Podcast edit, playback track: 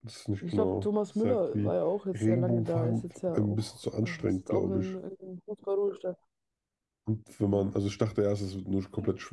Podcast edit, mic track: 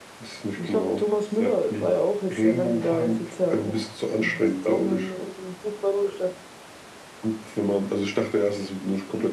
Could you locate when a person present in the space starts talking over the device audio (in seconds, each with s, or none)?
none